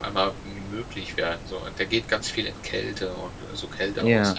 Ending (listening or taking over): listening